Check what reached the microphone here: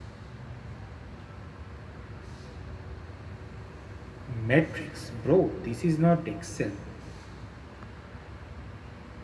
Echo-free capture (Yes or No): Yes